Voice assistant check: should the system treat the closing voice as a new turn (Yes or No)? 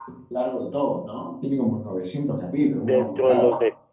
Yes